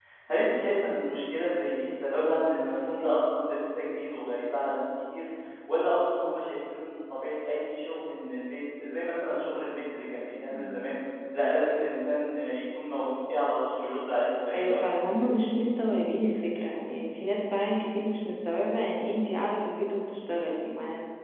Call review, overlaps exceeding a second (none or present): none